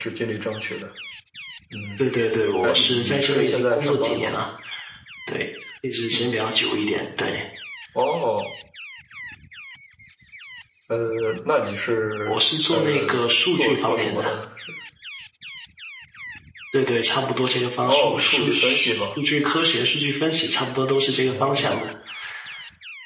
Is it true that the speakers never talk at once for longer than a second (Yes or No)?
No